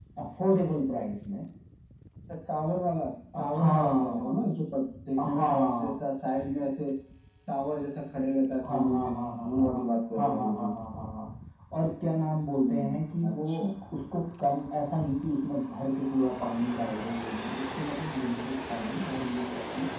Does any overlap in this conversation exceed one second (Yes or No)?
Yes